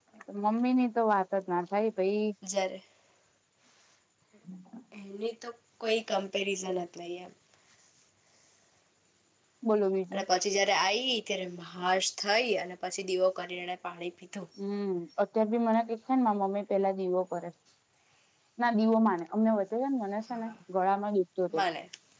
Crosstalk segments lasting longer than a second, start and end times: none

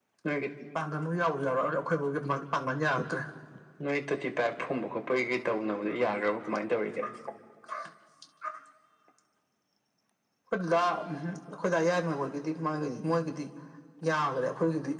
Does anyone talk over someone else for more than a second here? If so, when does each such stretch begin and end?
none

